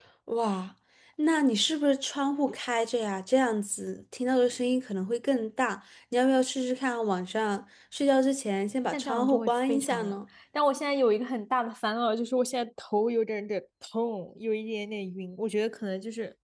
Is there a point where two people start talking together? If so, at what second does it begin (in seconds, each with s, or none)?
8.9 s